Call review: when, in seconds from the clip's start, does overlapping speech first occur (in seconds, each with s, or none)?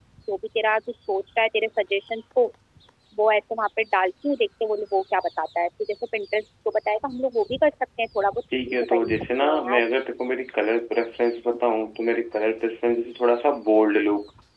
8.5 s